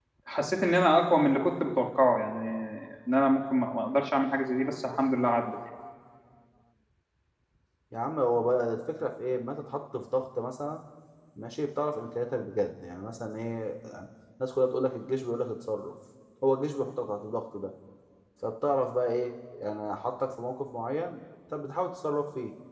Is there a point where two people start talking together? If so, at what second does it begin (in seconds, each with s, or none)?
none